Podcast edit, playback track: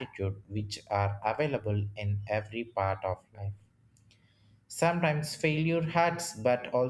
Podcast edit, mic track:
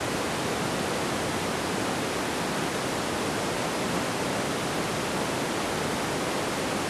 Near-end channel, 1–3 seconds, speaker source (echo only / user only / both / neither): neither